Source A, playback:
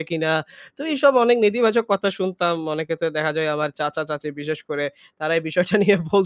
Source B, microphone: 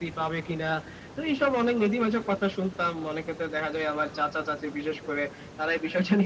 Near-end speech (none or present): none